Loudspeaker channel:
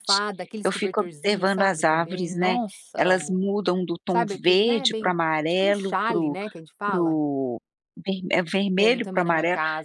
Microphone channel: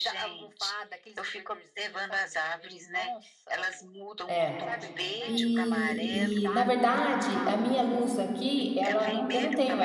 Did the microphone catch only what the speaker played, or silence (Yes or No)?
No